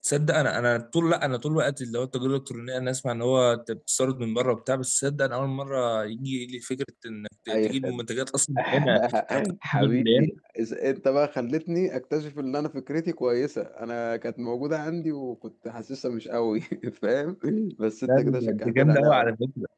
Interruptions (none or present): present